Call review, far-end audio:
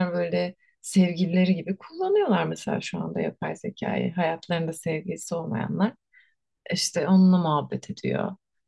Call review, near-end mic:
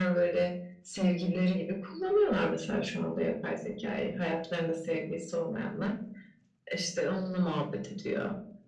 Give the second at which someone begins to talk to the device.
none

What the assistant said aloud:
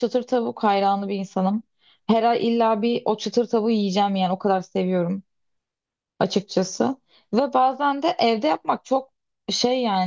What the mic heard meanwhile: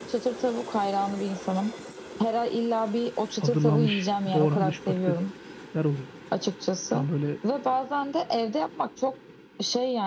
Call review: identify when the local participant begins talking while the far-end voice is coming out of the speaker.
3.3 s

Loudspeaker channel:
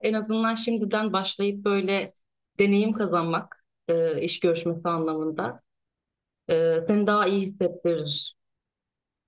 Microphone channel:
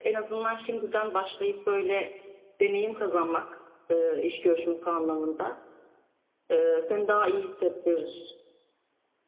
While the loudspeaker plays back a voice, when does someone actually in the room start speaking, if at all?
none

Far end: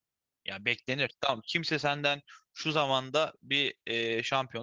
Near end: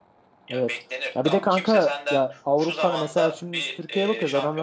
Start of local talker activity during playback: 0.5 s

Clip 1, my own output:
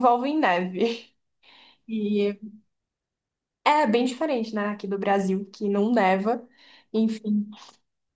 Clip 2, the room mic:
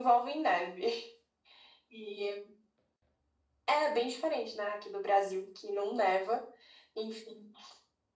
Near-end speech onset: none

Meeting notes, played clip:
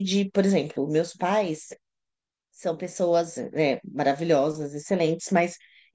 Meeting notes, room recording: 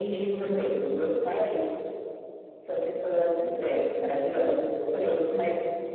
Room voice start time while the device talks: none

